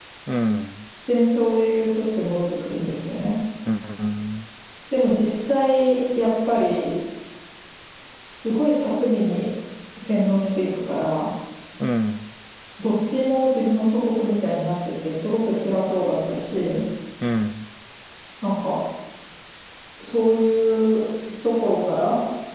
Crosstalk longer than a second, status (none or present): none